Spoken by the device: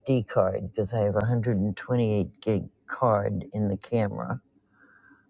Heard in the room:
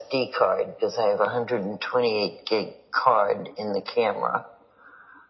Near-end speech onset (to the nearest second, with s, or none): none